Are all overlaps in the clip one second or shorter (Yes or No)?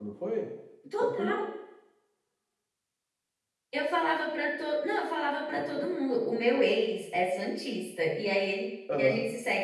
Yes